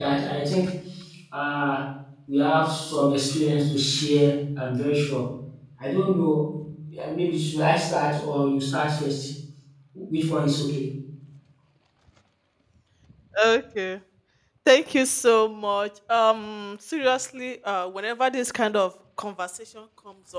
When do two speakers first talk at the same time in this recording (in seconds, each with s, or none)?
none